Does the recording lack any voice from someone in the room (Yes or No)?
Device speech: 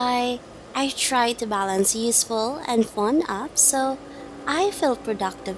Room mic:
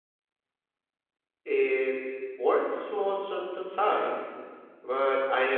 No